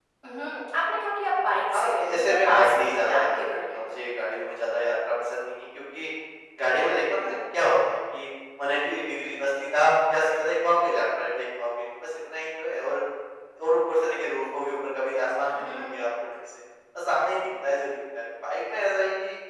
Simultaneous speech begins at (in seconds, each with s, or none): 1.7 s